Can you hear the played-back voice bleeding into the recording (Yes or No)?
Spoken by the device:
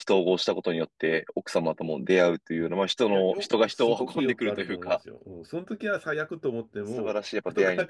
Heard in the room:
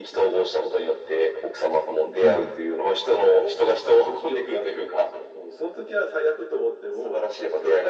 Yes